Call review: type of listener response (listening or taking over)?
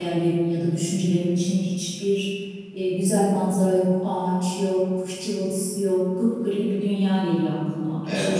taking over